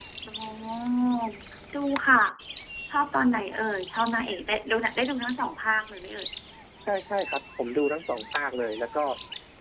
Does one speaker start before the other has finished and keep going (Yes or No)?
No